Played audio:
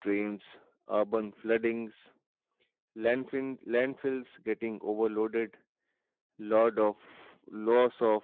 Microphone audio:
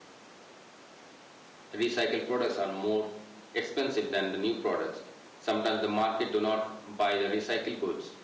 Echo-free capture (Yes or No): Yes